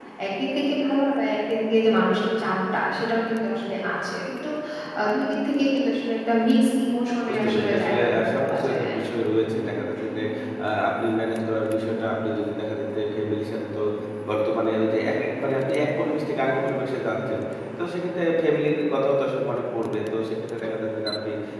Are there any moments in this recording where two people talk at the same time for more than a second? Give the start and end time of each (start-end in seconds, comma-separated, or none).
7.3-8.9